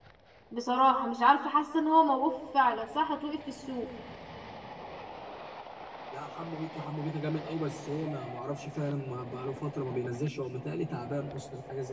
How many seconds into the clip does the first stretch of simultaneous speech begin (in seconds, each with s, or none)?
none